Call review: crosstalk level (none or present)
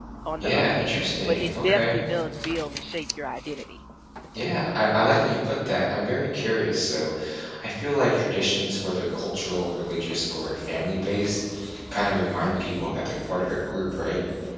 present